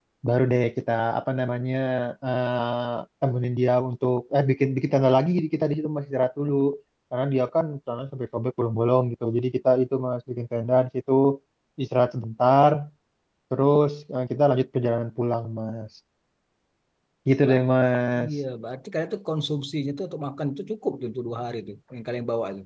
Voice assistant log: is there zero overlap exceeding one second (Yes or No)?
Yes